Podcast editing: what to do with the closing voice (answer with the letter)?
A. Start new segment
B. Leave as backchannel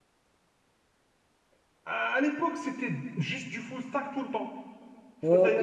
B